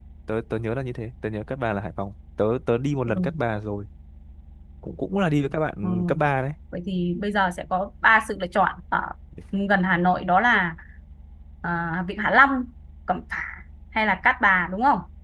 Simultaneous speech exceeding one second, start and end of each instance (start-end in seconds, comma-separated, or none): none